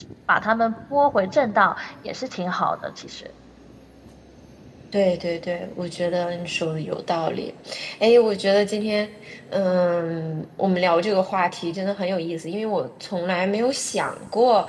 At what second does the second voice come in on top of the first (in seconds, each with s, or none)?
none